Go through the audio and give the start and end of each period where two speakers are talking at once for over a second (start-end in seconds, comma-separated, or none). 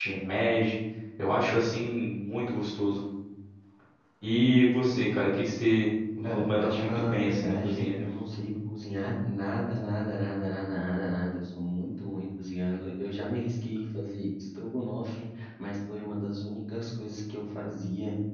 6.2-8.0